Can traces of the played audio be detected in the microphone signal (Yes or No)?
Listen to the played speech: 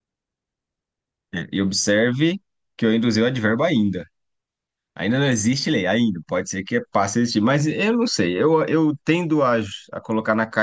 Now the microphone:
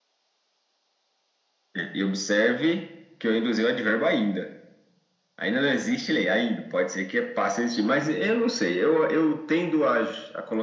Yes